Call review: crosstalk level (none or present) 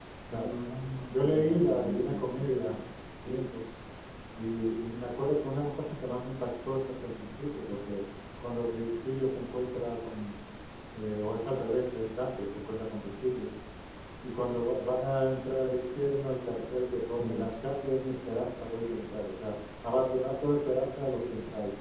present